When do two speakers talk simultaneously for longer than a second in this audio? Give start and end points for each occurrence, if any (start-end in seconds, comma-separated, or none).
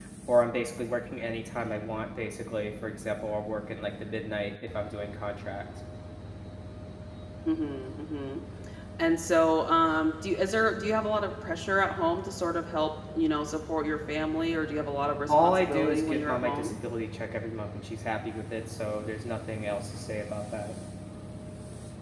15.3-16.7